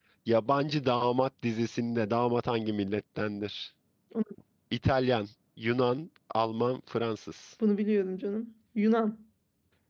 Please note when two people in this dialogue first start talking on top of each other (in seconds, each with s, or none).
none